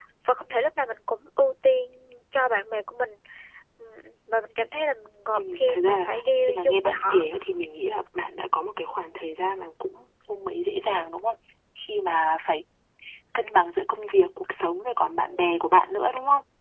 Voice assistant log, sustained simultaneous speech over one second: present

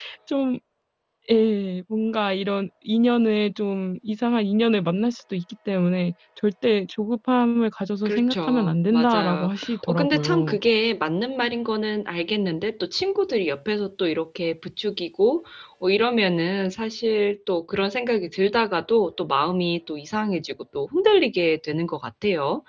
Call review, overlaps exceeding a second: present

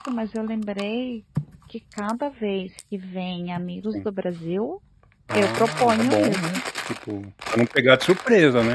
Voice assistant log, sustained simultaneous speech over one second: present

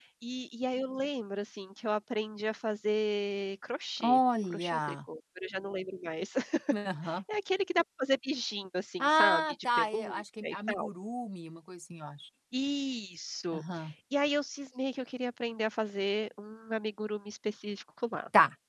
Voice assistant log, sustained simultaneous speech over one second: present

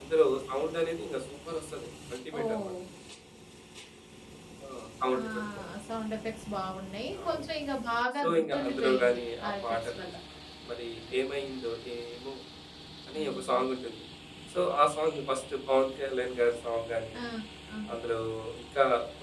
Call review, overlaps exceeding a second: present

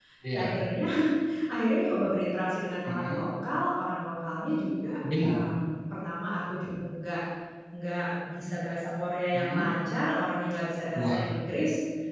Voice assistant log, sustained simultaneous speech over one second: none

